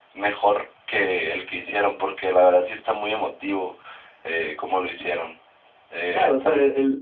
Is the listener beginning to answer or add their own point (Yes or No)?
Yes